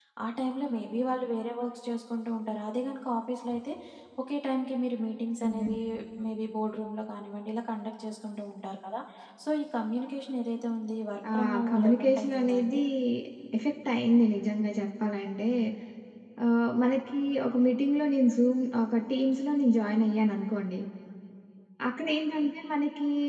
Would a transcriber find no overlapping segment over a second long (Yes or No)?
No